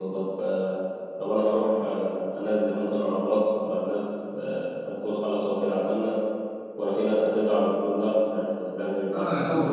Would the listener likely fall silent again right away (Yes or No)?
No